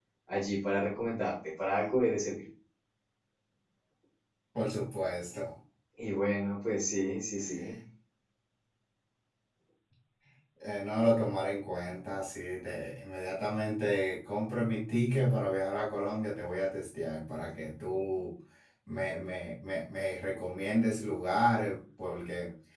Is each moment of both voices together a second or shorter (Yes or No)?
Yes